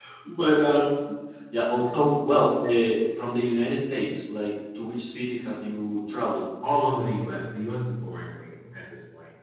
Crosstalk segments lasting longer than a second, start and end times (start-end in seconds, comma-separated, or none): none